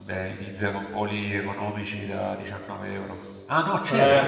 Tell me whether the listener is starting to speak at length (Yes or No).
No